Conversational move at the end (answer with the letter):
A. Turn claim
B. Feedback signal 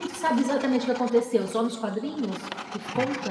A